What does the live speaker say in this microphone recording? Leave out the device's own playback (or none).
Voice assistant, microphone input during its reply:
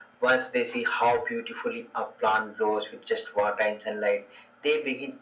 none